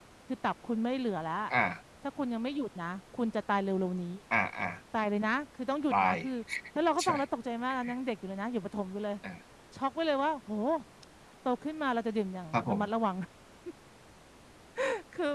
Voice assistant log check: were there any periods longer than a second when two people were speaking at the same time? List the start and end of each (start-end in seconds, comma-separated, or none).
none